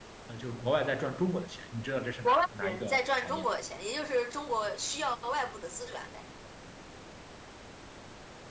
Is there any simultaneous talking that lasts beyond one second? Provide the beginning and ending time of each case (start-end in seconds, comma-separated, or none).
2.2-3.5